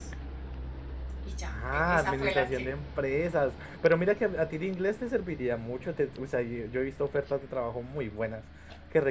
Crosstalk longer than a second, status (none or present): present